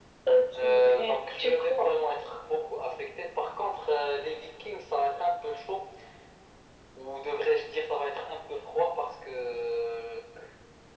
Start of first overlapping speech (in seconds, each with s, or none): 0.6 s